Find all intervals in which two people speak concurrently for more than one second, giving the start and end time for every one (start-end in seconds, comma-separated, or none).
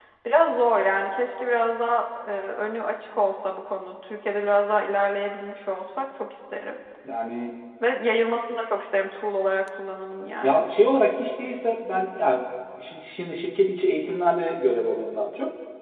none